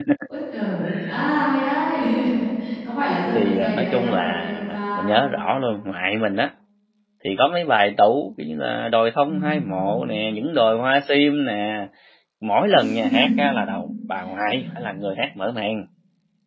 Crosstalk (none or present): present